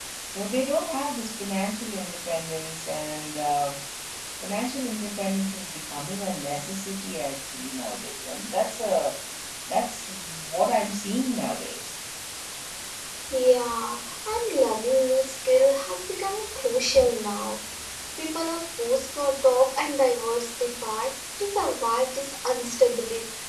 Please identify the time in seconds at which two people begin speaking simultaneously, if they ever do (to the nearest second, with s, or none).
none